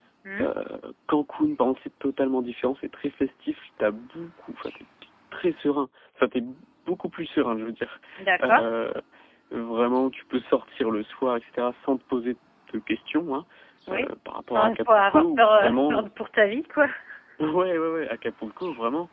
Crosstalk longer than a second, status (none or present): present